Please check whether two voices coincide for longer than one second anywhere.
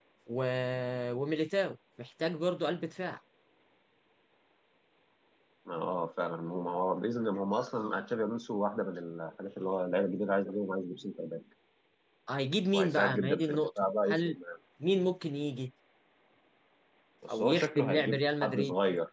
Yes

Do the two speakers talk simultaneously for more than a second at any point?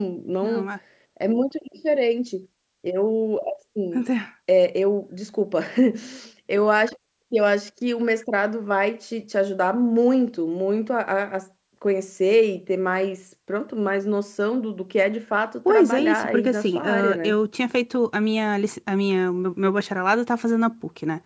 Yes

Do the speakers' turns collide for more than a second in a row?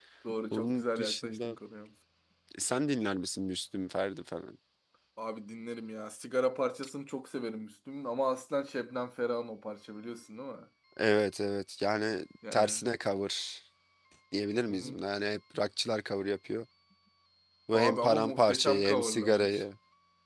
Yes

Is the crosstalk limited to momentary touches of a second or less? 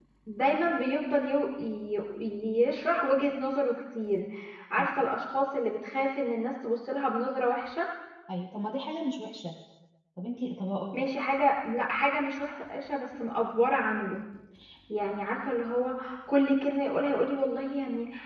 Yes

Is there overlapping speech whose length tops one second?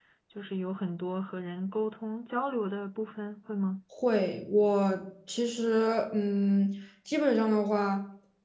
No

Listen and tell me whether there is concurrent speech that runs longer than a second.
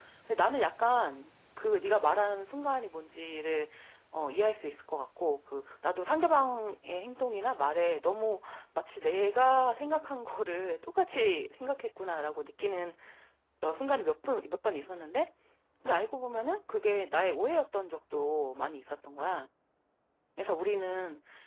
No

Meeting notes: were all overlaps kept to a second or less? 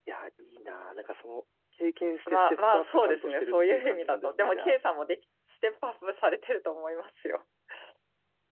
No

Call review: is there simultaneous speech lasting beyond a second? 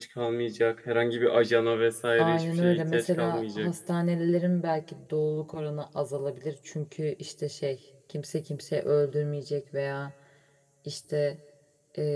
Yes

